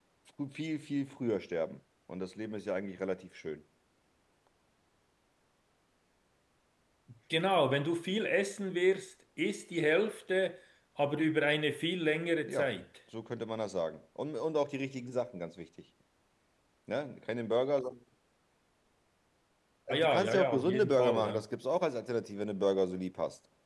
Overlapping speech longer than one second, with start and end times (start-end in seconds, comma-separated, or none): 19.9-21.4